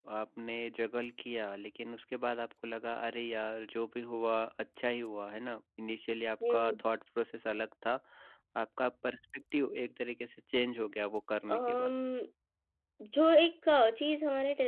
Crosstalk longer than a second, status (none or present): none